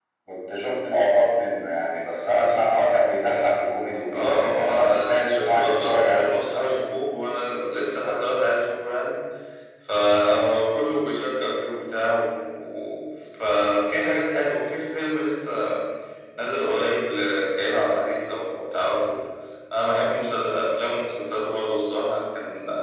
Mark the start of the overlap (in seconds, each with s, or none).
4.1 s